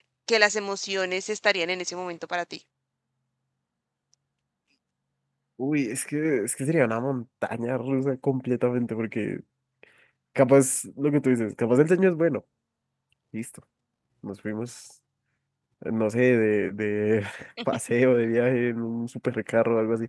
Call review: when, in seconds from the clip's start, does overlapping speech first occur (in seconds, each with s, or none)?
none